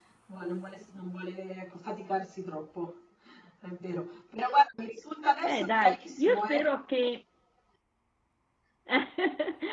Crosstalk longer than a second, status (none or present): present